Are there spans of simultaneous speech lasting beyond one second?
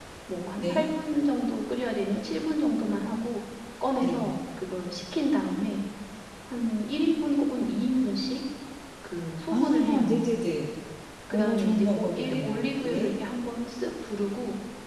Yes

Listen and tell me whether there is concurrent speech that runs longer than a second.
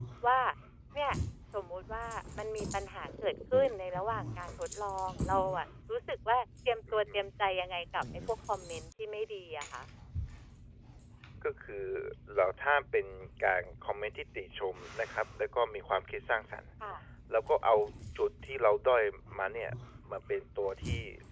No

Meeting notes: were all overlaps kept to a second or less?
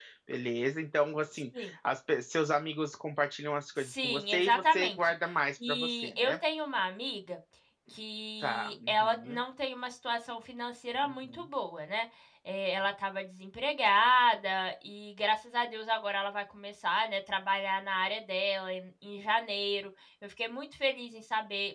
No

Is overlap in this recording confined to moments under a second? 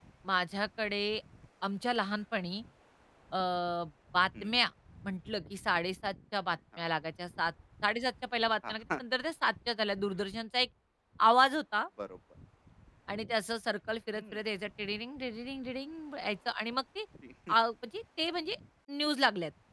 Yes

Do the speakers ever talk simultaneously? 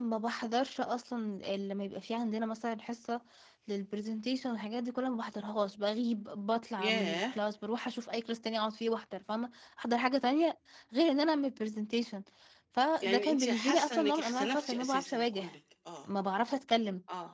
Yes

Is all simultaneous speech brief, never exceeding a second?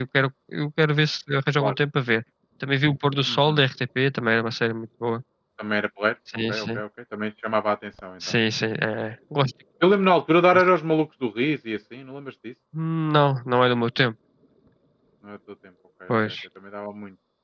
Yes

